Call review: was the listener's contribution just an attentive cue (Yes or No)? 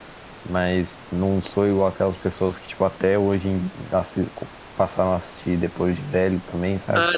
No